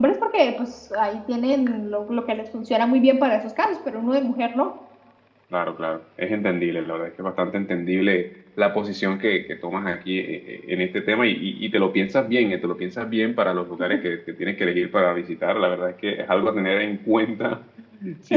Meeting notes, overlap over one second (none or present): none